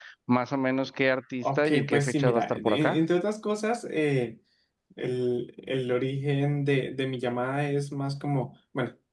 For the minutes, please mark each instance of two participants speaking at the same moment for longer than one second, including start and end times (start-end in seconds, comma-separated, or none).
1.4-3.0